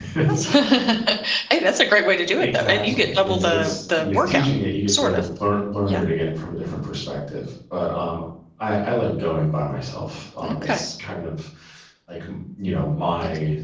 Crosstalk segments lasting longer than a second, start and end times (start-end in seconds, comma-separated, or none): 2.3-4.5